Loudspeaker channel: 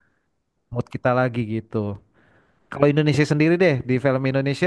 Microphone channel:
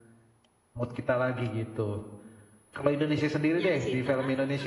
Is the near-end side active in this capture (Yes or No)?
Yes